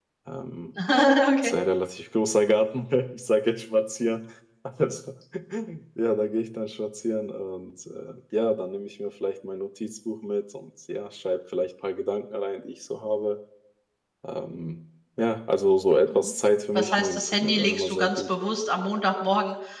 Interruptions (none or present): present